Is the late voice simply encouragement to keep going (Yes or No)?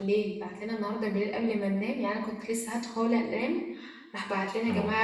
Yes